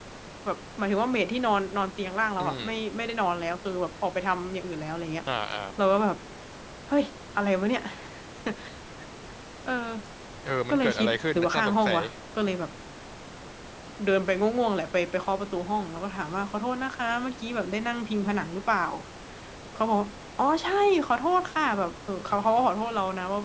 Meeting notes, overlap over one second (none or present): present